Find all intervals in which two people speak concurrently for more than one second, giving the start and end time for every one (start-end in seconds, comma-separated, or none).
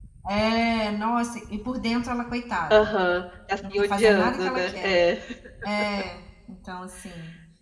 3.7-5.0